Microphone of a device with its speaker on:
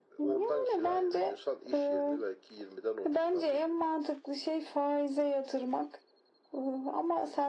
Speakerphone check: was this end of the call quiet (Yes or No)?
Yes